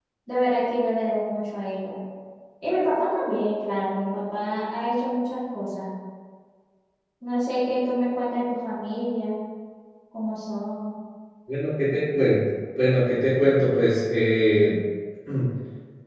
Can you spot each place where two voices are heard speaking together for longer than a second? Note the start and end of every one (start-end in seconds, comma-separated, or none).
none